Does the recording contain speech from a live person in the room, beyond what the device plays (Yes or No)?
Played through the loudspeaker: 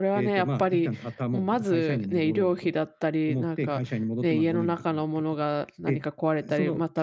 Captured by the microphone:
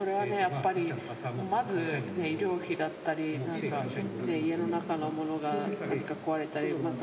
Yes